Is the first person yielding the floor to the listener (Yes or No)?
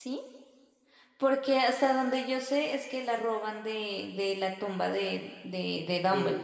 Yes